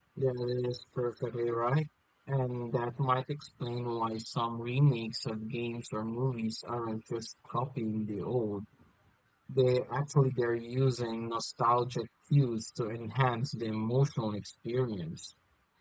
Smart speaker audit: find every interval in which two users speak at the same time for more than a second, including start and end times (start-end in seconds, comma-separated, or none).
none